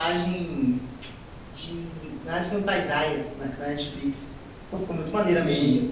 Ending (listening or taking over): listening